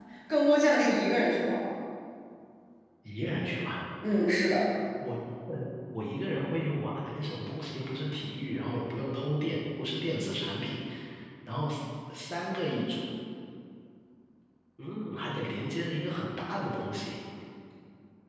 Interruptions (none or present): none